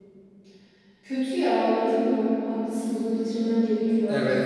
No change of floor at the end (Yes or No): No